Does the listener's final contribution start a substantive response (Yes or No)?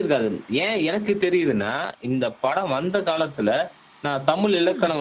No